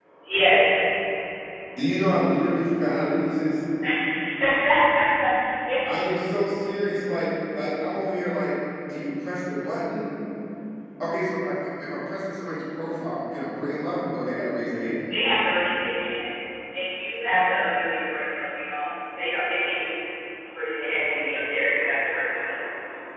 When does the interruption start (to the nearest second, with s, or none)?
none